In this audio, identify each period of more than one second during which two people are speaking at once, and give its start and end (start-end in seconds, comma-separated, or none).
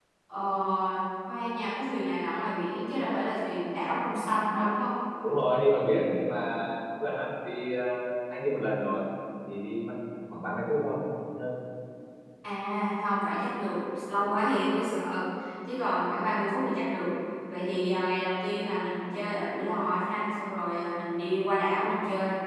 none